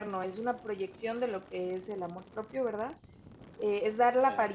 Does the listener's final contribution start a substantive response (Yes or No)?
No